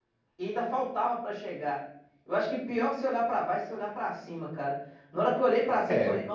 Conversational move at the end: listening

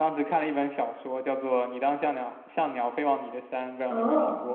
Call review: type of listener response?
taking over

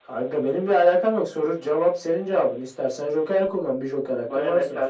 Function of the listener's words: taking over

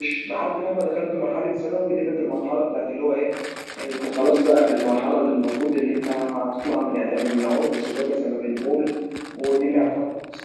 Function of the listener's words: listening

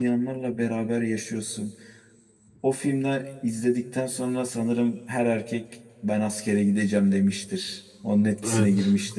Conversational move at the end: taking over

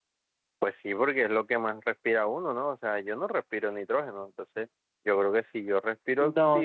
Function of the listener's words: taking over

